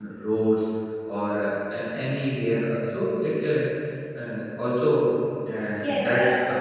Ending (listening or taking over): taking over